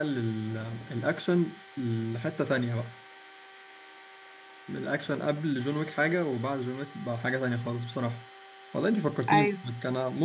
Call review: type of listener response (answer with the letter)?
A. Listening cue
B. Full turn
A